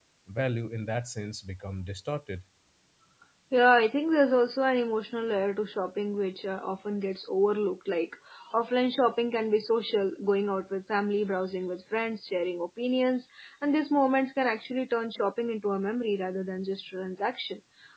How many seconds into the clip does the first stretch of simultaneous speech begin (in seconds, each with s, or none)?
none